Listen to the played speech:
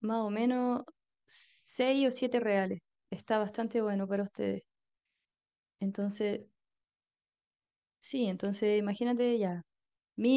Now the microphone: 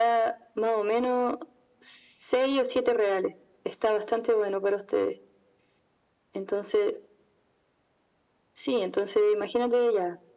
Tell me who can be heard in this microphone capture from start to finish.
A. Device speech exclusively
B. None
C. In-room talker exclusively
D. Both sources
A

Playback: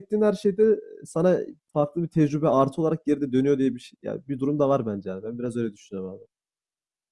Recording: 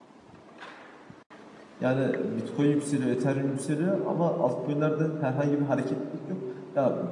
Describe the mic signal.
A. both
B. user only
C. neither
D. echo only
B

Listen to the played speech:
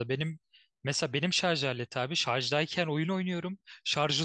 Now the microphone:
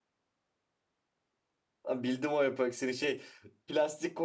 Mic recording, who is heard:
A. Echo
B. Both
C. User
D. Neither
C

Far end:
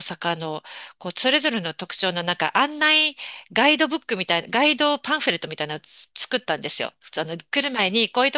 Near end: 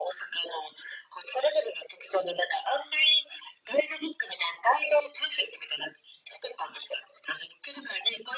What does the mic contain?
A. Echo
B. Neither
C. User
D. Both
A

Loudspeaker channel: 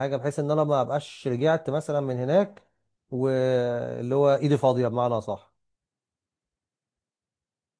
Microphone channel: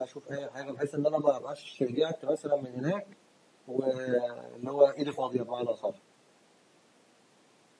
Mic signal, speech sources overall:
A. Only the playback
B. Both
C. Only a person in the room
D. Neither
A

